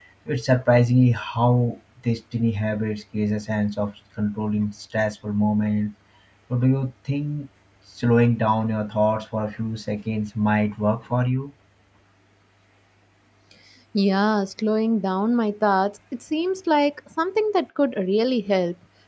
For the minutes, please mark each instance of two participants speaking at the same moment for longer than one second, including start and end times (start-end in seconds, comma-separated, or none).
none